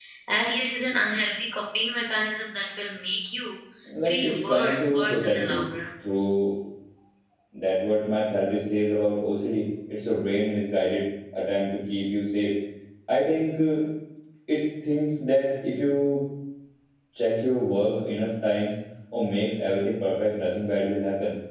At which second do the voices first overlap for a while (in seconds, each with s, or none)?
4.0 s